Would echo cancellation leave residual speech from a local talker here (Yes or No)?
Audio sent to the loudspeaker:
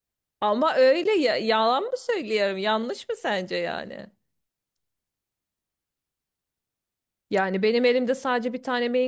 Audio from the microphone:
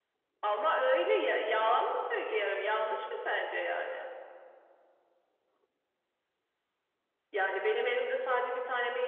No